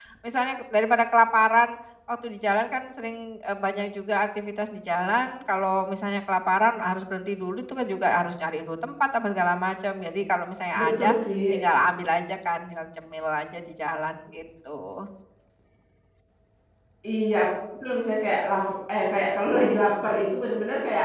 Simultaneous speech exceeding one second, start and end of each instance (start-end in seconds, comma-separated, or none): none